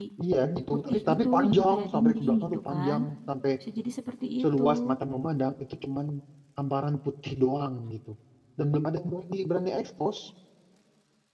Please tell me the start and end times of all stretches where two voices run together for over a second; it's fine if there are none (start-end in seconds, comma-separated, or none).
0.9-3.0